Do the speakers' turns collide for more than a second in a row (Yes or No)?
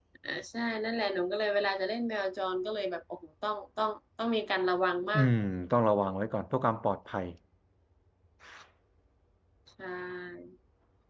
No